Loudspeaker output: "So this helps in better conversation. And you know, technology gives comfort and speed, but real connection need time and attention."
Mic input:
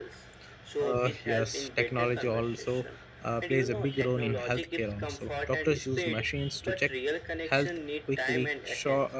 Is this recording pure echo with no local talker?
No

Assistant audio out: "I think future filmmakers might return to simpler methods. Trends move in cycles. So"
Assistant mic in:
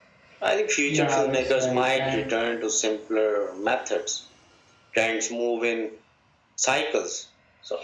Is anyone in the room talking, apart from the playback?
Yes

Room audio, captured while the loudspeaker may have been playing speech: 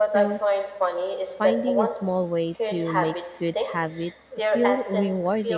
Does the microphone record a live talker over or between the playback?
Yes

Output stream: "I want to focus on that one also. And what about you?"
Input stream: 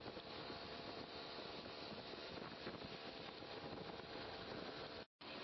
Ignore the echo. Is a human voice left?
No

